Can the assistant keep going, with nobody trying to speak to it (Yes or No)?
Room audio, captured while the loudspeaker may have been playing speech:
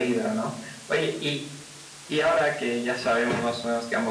Yes